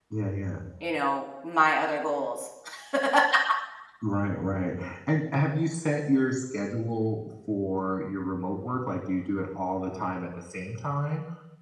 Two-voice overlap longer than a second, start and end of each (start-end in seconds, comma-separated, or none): none